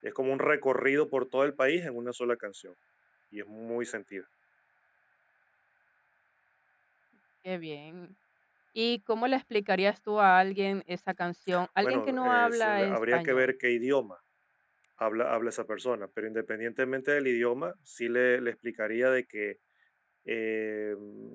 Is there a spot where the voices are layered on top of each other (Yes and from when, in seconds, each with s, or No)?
Yes, from 11.8 s